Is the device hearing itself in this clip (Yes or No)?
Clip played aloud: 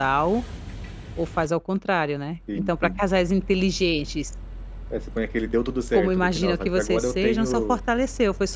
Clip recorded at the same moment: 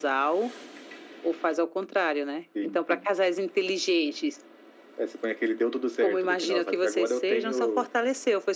Yes